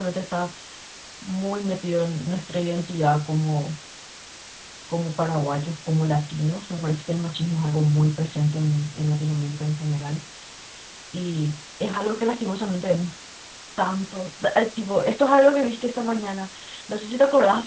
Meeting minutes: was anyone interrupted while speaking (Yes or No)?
No